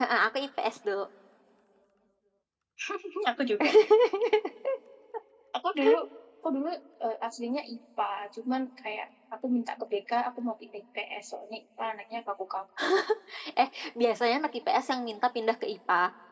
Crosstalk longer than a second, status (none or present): none